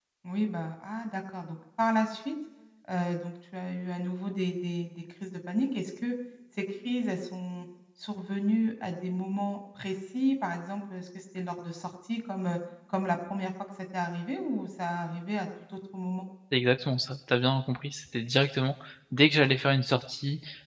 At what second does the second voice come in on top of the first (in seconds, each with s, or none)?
none